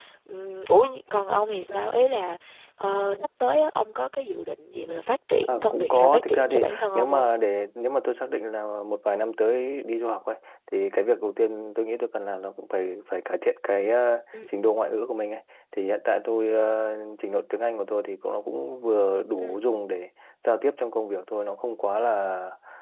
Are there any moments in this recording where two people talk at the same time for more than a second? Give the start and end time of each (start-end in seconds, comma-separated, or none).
5.5-7.3